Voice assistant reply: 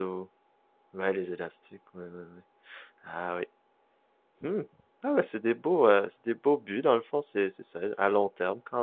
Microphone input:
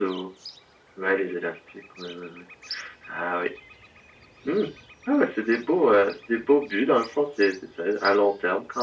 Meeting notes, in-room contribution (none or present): none